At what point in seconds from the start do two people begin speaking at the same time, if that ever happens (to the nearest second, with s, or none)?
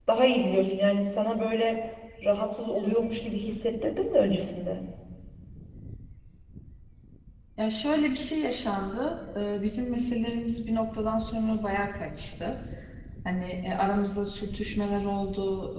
none